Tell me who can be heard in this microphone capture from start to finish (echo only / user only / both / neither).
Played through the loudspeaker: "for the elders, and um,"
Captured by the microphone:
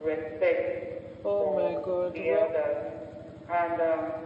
both